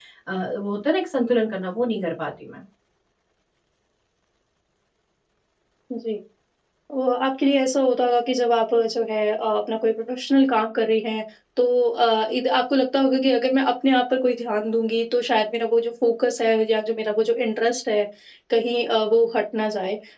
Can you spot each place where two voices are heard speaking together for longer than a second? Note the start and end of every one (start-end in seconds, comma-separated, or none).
none